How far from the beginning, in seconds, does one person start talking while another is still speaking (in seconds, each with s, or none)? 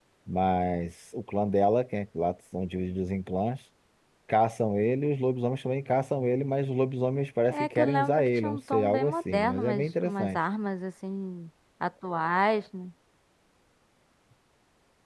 7.5 s